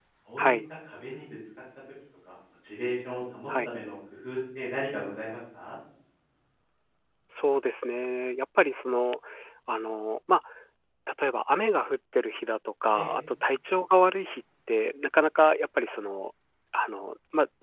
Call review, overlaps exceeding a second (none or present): none